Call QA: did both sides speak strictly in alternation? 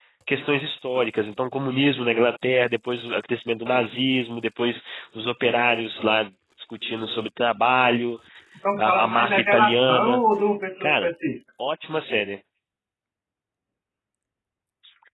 No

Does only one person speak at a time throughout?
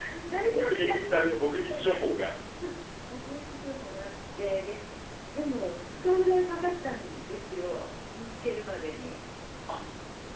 No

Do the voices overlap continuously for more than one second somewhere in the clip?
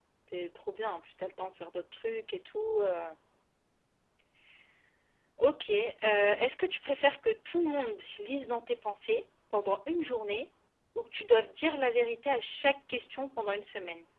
No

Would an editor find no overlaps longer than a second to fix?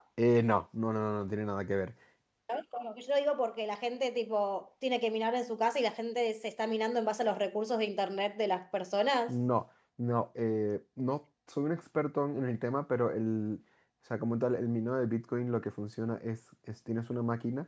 Yes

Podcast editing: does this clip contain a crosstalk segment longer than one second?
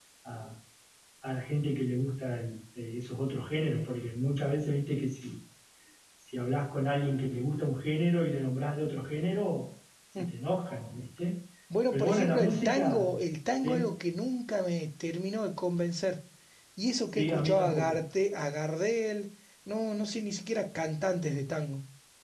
Yes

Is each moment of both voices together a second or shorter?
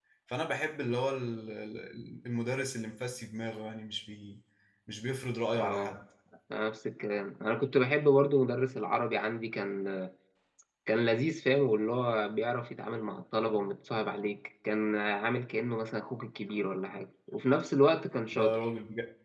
Yes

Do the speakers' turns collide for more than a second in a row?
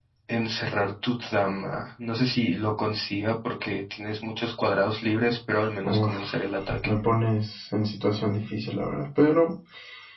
No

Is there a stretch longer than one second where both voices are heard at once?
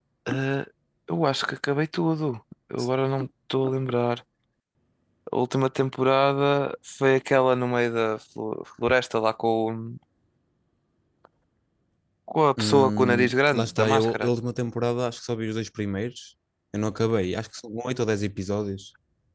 Yes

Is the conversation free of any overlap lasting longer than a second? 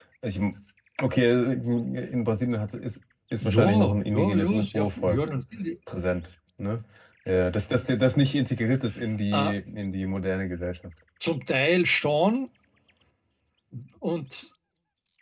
No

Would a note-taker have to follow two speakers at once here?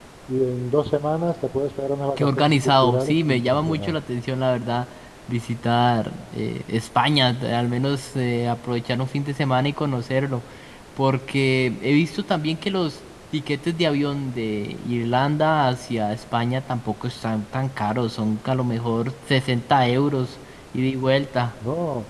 Yes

